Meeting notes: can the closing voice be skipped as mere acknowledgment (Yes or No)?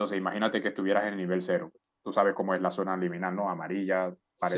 No